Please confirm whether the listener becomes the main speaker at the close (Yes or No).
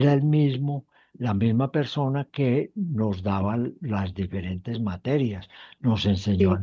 No